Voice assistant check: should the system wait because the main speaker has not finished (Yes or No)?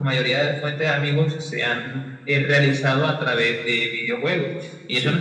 Yes